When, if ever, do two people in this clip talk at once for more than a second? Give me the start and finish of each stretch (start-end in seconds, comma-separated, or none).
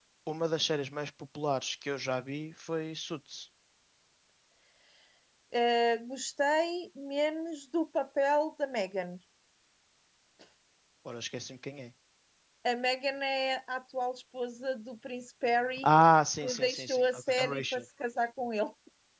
16.4-17.8